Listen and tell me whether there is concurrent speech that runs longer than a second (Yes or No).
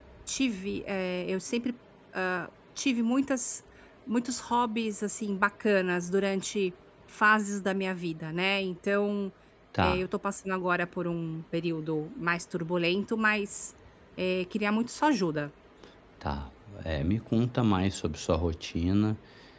No